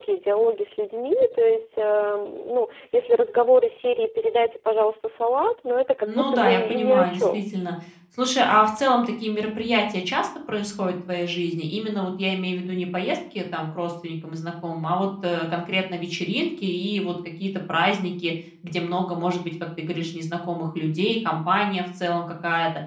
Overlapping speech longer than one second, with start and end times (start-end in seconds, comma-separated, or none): 6.1-7.4